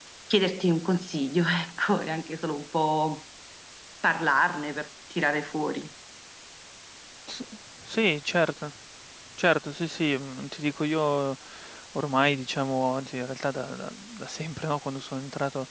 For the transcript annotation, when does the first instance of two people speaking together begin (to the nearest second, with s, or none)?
none